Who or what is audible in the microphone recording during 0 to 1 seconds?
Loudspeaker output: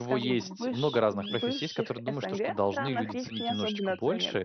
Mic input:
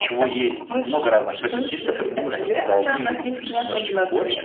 echo only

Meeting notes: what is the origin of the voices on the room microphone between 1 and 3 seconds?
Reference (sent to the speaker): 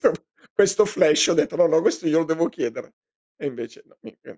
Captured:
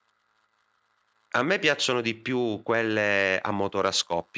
user only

